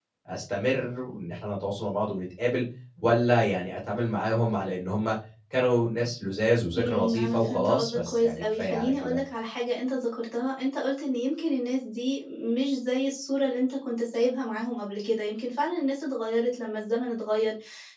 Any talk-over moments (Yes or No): Yes